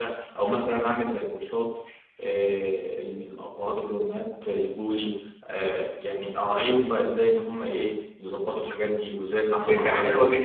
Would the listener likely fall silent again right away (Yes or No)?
No